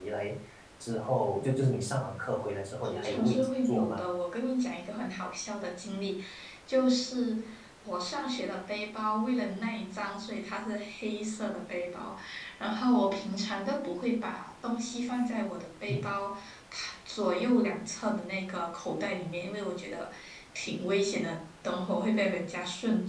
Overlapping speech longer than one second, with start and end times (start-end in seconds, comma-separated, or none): 2.8-4.0